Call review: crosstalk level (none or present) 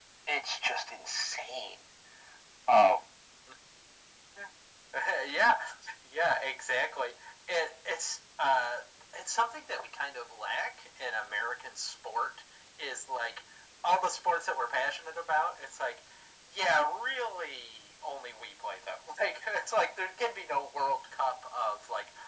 none